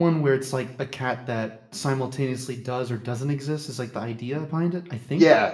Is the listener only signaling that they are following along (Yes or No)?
No